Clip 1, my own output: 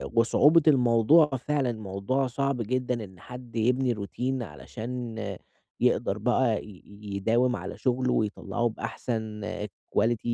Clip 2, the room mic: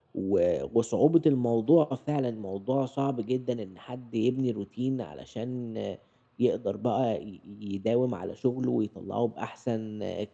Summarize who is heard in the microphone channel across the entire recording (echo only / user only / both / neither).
echo only